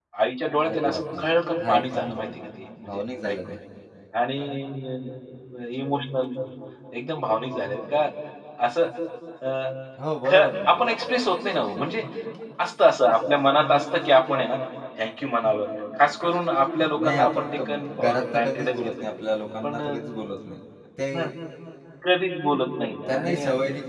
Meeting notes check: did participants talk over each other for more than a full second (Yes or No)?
Yes